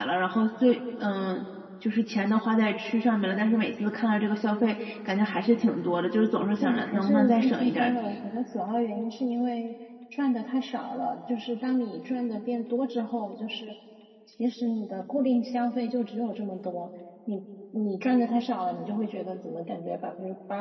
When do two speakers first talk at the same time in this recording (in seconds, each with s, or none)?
6.6 s